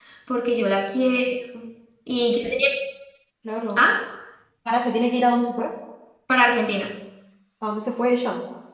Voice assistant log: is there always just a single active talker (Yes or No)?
Yes